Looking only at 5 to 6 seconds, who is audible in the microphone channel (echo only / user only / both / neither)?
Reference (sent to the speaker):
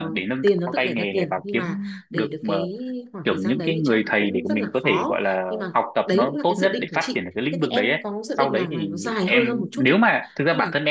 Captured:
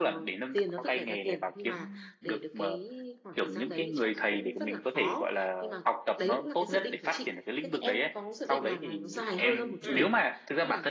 echo only